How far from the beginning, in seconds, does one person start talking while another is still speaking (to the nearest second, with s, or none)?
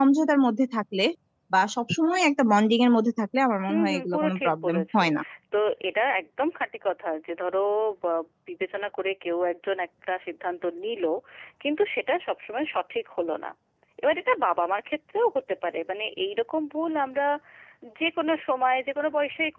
4 s